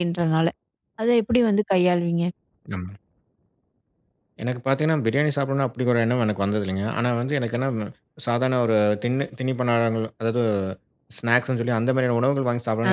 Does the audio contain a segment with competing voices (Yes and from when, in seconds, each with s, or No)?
No